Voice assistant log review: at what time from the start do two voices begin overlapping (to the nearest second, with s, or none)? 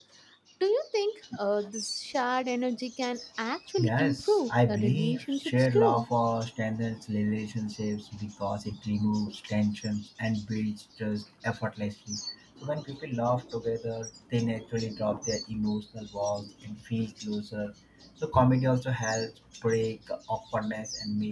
4 s